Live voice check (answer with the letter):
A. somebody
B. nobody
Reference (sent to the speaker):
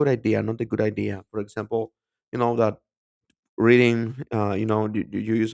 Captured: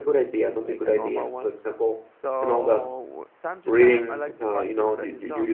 A